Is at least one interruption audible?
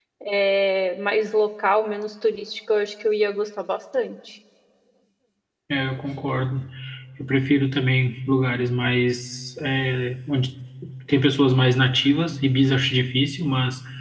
No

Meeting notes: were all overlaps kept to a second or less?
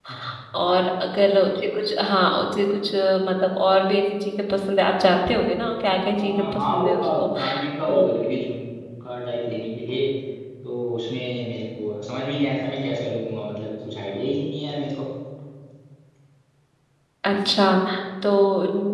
No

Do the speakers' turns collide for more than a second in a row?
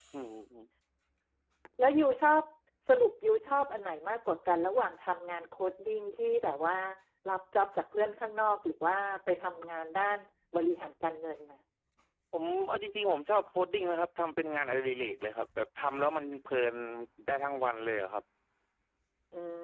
No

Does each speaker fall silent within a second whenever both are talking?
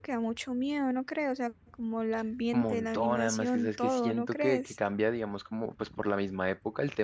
No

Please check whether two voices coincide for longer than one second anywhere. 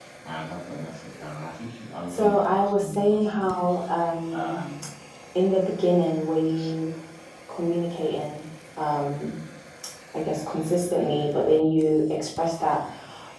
Yes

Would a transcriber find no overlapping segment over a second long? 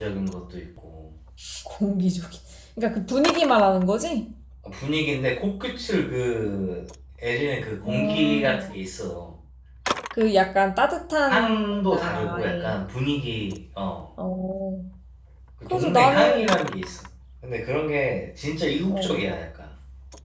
No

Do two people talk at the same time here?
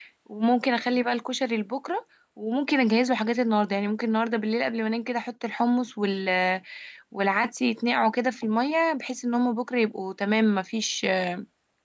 No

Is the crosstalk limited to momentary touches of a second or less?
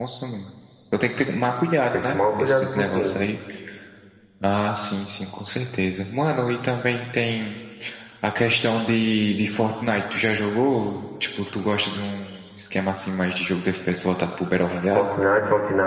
No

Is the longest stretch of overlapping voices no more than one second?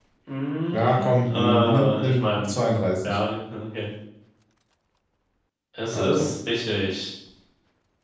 No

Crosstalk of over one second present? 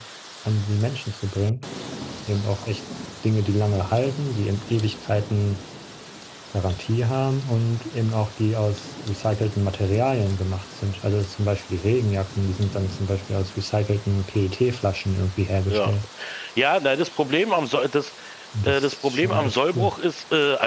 Yes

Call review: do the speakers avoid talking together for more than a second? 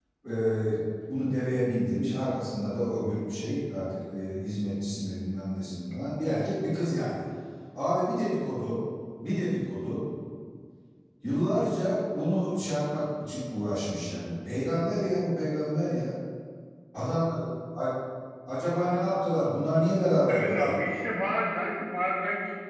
Yes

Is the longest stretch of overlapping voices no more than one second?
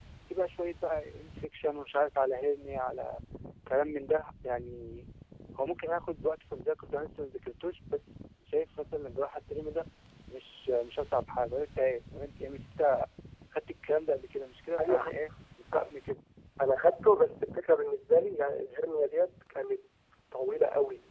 Yes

